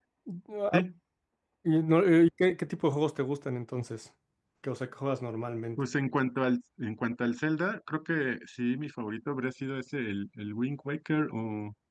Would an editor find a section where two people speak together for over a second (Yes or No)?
No